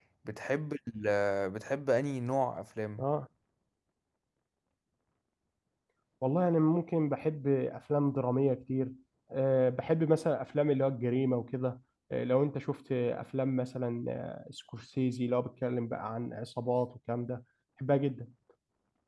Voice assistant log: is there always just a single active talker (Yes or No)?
Yes